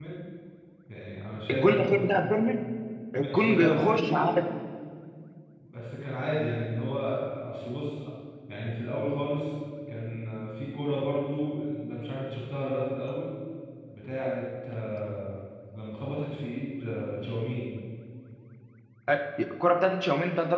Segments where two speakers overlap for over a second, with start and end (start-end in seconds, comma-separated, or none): 3.2-4.4